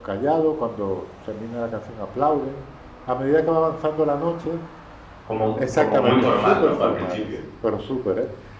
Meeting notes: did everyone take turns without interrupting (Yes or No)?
No